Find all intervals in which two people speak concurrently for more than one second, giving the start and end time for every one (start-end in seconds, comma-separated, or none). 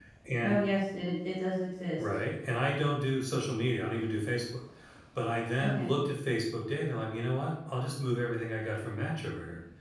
none